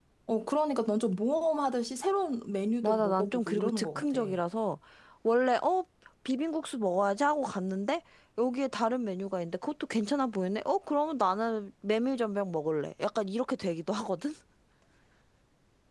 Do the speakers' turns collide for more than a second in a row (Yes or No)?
Yes